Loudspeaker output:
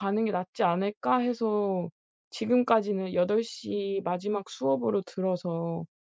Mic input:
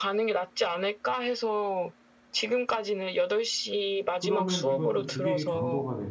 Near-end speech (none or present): present